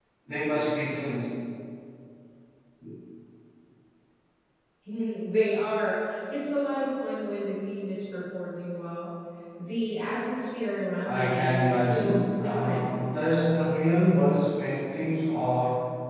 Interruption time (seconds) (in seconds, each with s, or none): 11.1 s